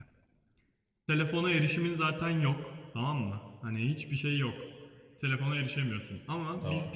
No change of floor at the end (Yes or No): Yes